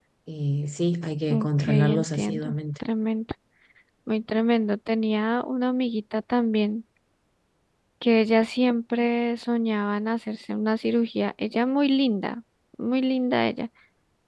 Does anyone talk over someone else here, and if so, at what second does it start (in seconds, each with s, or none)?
1.3 s